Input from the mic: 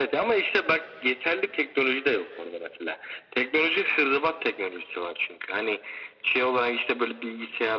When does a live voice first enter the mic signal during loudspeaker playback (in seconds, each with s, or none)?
none